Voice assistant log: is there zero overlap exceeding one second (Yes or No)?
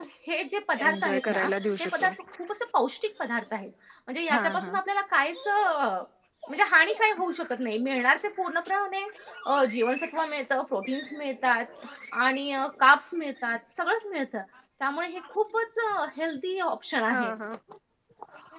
No